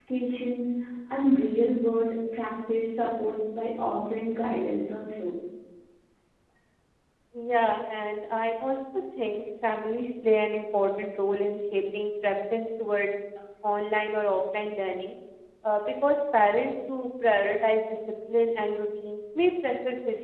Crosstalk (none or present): none